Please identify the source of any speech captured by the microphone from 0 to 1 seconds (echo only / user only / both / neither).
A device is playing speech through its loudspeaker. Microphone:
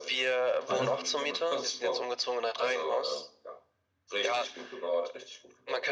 both